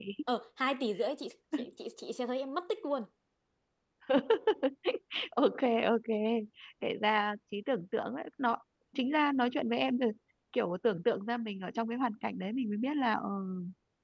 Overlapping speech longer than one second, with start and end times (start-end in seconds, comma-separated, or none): none